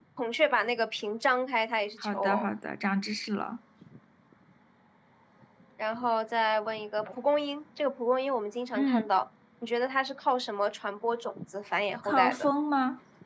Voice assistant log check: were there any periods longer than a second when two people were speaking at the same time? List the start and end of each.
none

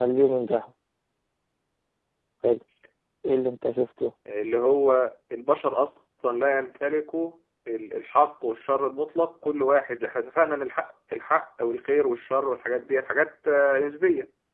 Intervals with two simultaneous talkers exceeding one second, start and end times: none

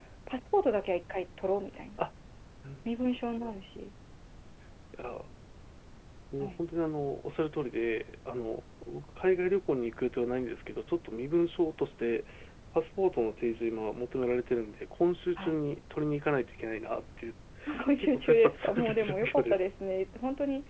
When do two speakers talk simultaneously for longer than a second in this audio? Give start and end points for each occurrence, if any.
18.0-19.6

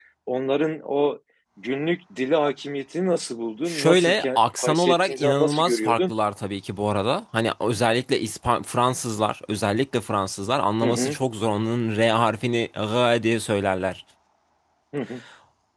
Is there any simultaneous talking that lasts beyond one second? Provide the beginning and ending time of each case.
3.7-6.1

